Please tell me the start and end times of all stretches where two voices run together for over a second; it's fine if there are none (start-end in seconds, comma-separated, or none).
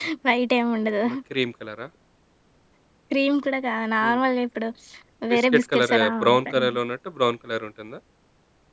5.3-6.6